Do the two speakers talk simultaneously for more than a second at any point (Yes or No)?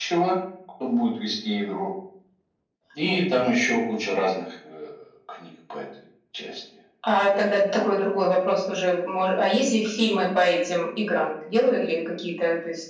No